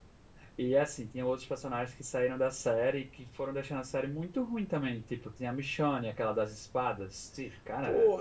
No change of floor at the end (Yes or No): No